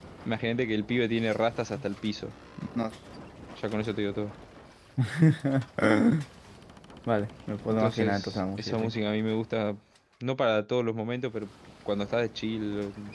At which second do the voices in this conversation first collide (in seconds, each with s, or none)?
7.7 s